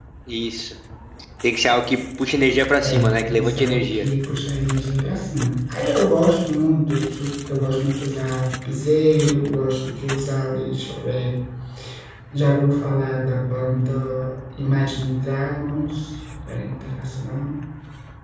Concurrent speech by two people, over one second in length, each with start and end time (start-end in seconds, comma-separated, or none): 2.8-4.0